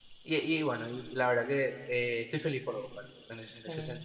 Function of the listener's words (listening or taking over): listening